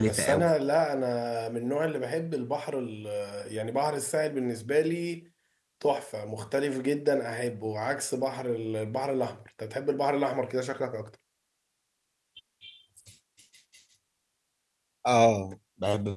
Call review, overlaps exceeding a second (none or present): none